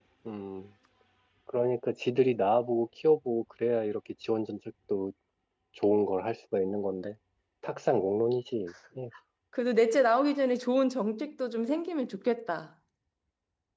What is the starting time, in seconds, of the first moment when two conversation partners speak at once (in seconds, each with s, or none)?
none